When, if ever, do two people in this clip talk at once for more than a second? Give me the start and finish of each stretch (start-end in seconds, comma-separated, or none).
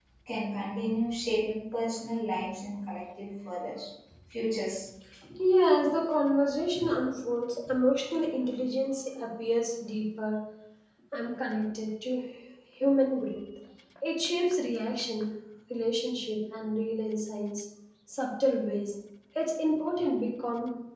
none